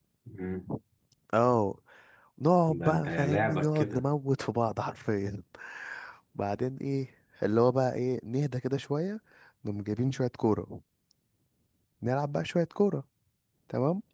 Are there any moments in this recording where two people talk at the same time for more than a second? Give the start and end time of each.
2.8-4.0

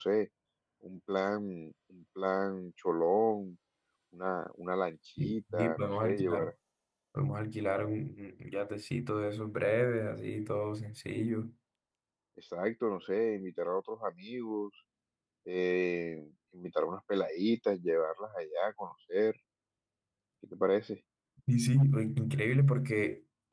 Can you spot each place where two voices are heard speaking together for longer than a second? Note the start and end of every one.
5.2-6.5

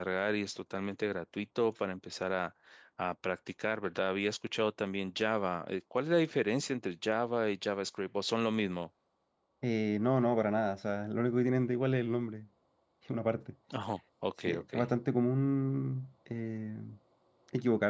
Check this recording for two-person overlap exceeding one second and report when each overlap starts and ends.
none

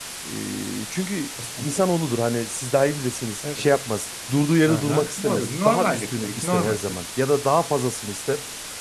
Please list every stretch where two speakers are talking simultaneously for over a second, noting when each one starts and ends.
4.7-7.0

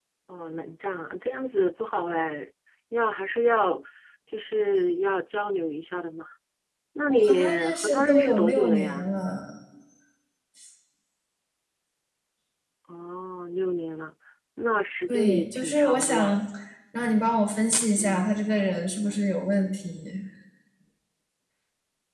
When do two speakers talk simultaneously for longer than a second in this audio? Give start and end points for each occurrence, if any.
7.1-9.1, 15.1-16.4

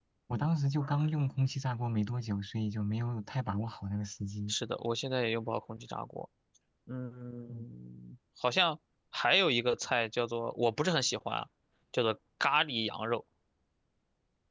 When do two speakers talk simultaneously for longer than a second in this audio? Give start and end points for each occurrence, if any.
none

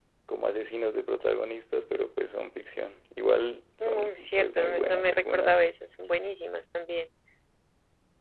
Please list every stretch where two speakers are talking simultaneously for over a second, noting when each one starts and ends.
3.8-5.6

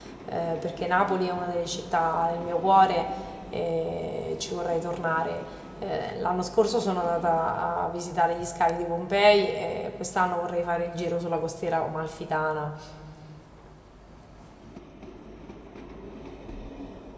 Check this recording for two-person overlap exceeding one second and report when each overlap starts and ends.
none

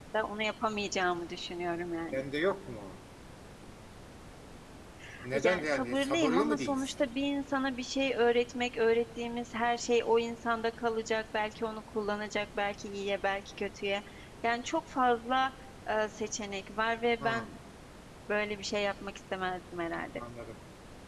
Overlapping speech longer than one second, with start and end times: 5.4-7.0

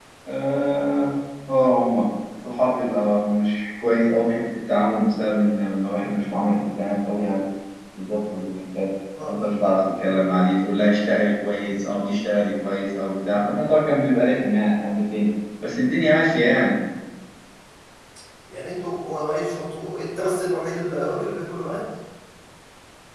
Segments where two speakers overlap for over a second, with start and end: none

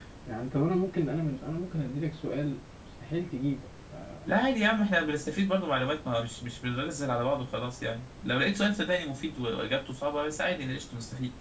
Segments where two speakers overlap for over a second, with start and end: none

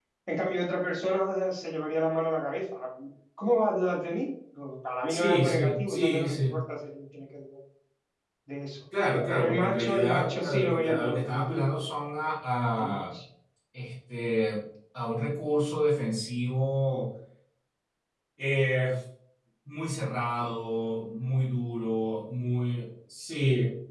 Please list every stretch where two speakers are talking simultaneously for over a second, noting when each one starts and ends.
5.1-6.6, 9.3-11.9

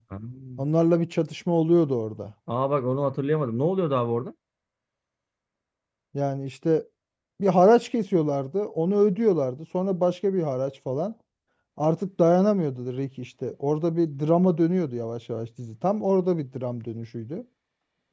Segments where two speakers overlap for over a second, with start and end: none

